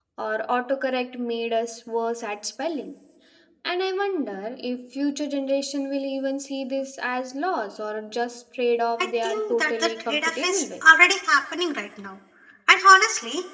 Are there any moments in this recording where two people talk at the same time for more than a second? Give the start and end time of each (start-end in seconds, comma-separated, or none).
9.0-10.6